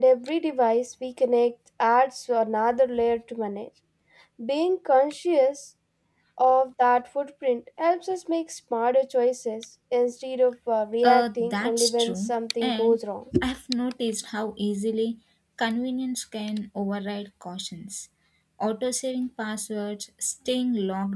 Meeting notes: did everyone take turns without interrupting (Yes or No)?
No